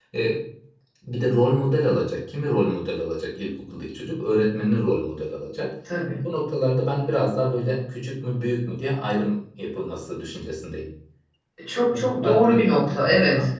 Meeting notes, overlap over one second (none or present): present